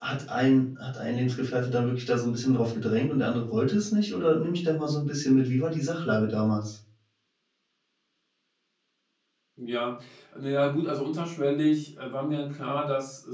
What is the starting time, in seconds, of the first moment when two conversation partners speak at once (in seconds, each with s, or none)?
none